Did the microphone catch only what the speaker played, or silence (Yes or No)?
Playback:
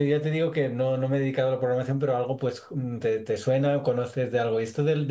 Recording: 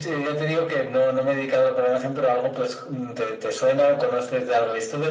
Yes